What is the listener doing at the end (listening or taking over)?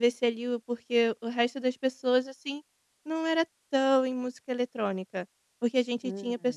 listening